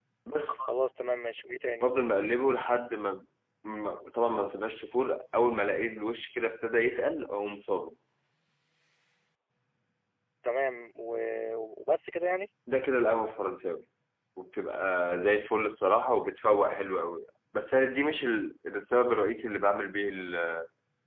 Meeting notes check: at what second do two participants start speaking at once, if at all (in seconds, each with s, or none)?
none